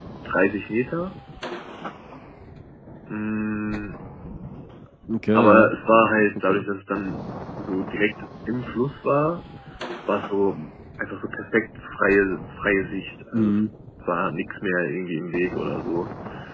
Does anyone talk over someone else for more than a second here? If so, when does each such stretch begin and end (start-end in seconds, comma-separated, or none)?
5.3-6.7